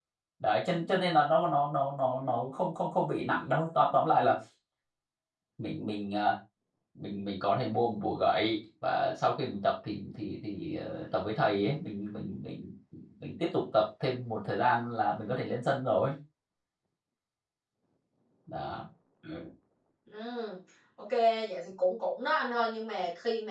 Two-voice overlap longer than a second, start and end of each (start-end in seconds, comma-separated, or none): none